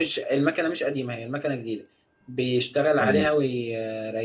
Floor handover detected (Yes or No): No